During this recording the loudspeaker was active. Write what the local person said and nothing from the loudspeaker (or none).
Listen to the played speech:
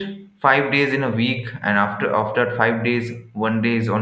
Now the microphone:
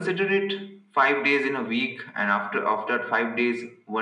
none